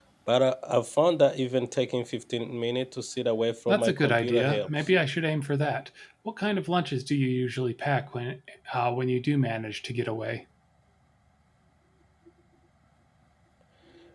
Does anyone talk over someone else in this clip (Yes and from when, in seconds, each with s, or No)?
Yes, from 3.7 s